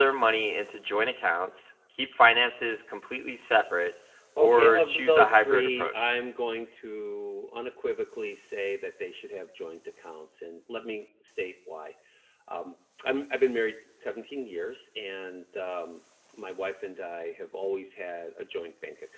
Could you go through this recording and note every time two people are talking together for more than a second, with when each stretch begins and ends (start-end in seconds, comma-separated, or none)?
4.4-6.1